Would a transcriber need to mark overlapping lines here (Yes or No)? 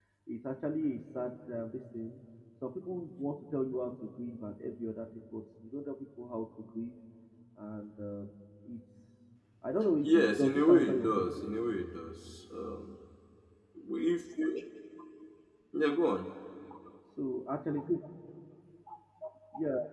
Yes